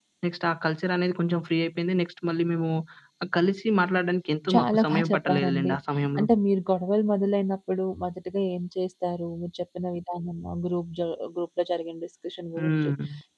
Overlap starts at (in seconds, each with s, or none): 4.5 s